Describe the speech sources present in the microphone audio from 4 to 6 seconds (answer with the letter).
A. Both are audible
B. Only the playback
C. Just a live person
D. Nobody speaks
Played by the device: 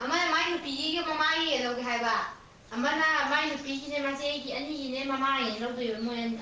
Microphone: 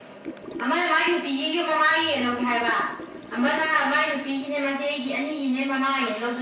B